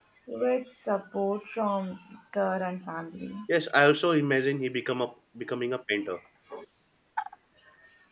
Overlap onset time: none

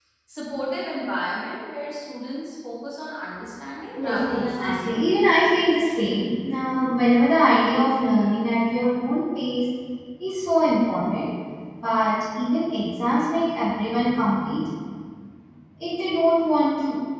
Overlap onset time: 4 s

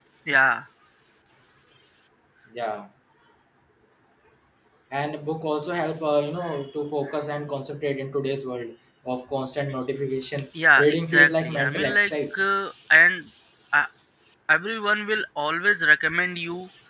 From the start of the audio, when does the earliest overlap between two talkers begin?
11 s

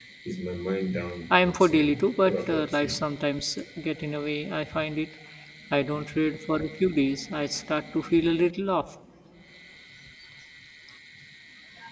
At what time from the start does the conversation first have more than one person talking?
1 s

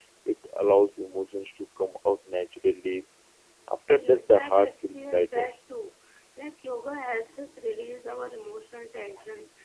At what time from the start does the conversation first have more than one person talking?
4 s

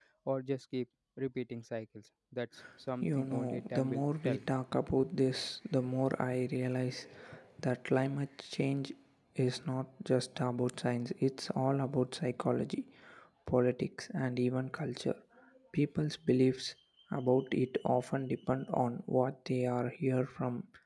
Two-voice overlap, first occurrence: 3 s

